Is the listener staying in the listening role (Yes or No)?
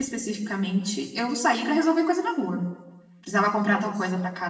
Yes